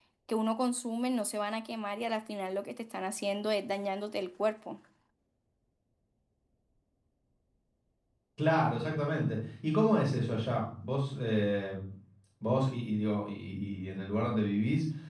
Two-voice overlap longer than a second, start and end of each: none

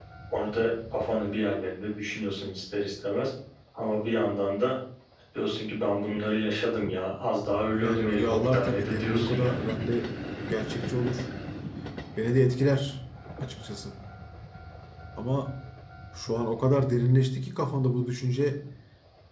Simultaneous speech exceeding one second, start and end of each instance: 7.7-9.6

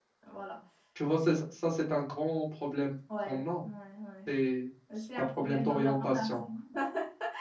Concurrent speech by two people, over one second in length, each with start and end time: 5.2-6.4

